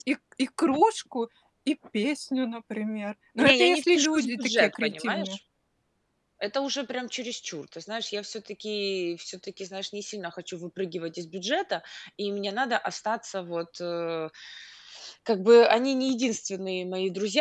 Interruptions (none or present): present